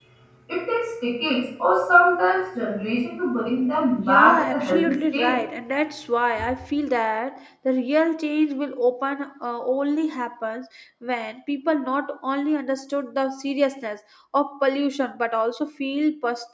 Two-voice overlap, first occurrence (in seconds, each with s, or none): 4.0 s